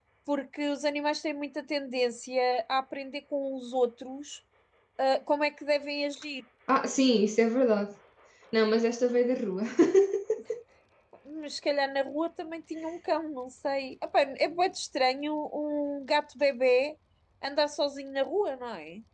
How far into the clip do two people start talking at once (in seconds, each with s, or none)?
none